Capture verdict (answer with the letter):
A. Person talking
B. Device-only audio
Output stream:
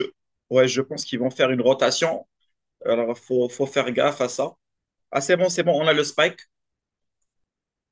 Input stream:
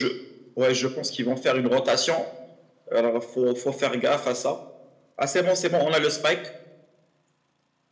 B